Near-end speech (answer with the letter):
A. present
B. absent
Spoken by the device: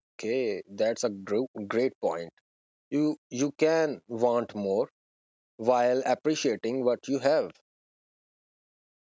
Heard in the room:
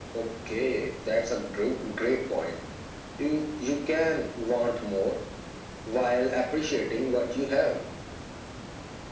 B